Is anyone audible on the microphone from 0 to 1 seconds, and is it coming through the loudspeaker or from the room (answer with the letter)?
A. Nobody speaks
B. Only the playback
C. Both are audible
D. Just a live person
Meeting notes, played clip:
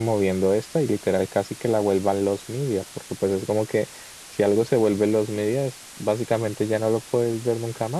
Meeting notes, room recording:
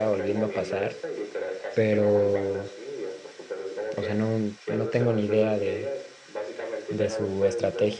C